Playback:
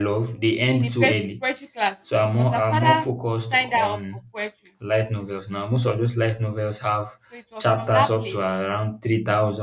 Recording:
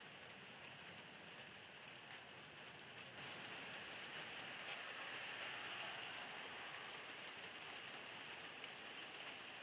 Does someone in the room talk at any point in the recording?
No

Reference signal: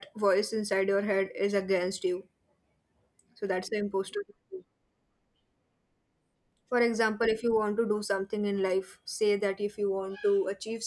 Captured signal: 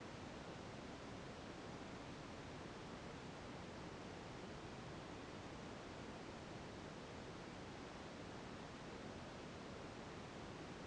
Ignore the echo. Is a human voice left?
No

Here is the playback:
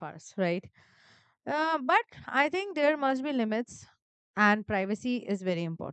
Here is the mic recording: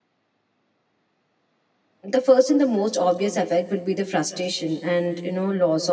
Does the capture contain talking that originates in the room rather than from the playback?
Yes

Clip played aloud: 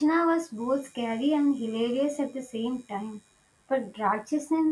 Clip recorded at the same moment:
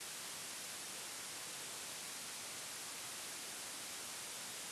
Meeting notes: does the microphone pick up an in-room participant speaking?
No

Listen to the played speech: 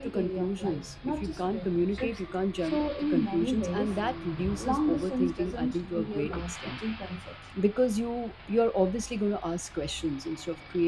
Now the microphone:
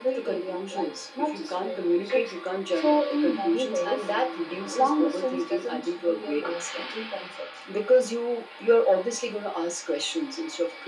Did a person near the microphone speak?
No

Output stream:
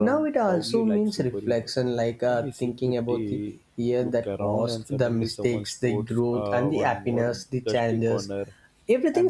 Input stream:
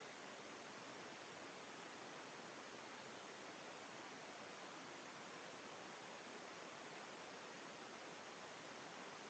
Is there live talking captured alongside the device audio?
No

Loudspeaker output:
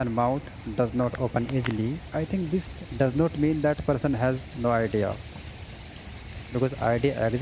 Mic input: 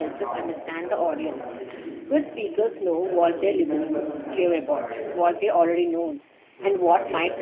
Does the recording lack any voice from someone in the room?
No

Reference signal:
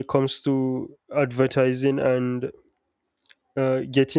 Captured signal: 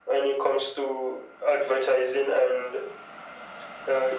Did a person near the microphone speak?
No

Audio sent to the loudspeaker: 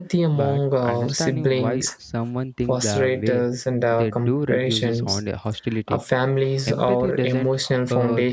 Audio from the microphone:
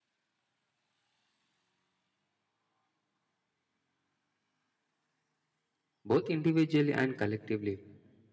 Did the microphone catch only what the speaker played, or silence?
No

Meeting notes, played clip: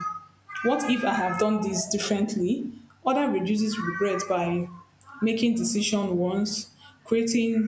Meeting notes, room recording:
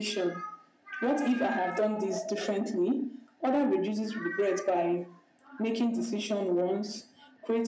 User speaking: No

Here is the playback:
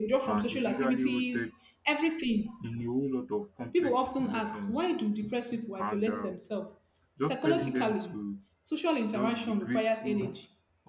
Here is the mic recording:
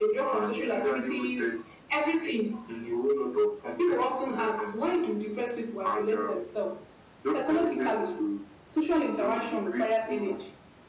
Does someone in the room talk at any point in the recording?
No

